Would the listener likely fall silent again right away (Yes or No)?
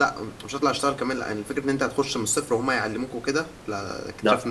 Yes